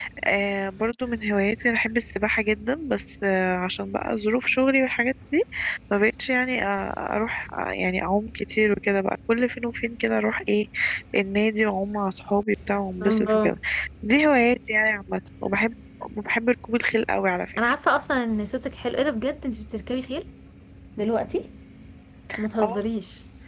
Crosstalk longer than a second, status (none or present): none